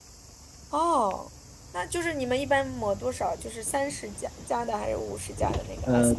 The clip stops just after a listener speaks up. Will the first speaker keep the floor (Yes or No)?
No